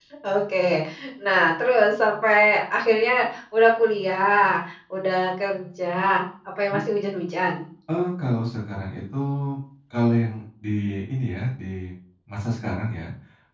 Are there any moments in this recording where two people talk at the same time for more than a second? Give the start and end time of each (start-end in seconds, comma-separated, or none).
none